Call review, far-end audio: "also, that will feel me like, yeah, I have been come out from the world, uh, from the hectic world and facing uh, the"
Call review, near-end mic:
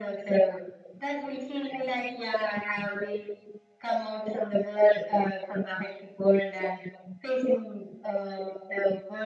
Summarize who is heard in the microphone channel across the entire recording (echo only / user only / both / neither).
echo only